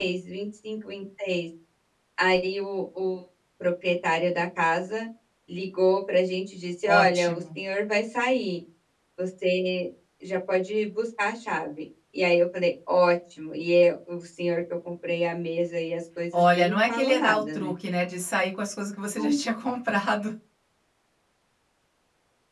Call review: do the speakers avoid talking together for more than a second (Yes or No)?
No